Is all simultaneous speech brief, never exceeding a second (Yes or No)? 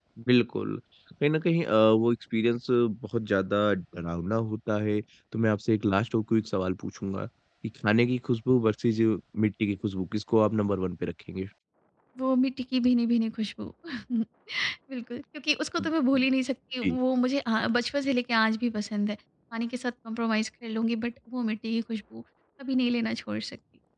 Yes